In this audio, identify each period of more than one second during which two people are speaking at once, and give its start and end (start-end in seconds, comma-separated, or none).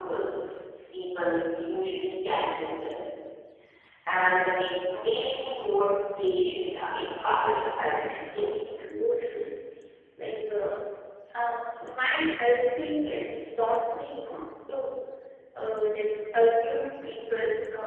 7.2-8.5